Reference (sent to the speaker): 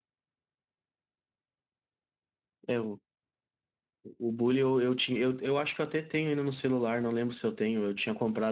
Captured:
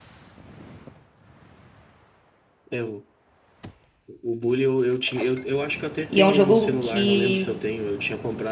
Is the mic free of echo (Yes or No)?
No